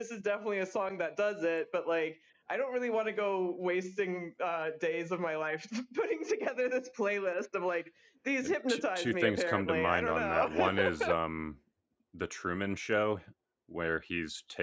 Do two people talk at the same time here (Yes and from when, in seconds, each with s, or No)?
Yes, from 8.4 s